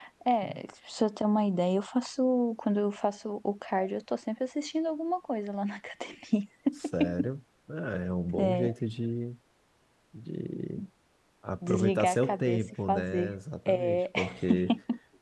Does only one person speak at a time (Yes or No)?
No